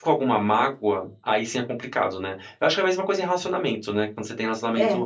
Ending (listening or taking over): listening